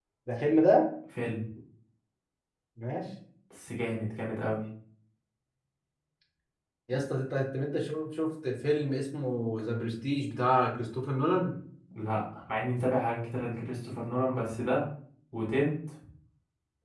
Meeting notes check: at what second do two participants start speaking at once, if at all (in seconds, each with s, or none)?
none